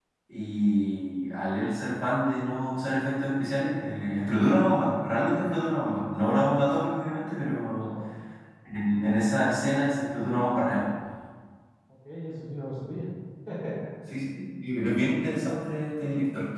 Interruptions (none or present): none